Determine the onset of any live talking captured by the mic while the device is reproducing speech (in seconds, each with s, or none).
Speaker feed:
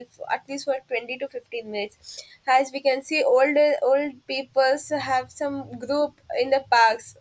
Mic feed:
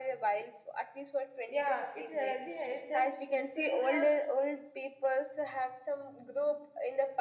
1.5 s